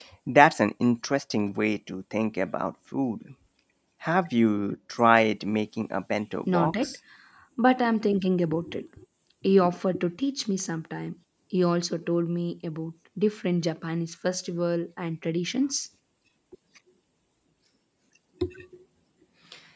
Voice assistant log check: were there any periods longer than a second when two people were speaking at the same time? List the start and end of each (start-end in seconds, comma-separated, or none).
none